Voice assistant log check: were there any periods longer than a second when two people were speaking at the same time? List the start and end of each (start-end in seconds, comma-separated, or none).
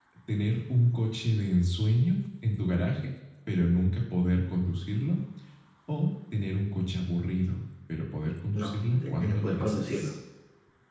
8.5-10.1